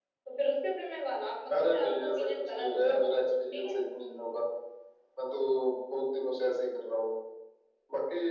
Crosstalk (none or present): present